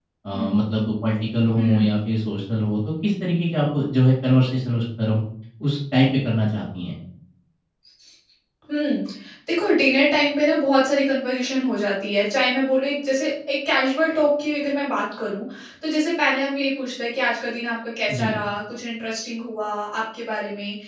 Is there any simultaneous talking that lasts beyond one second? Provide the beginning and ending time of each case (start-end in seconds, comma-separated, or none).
none